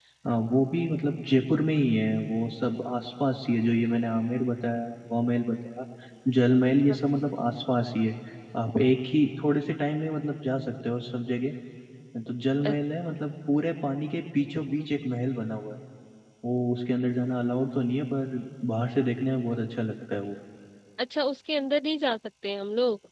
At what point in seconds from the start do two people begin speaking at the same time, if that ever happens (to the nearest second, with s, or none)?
none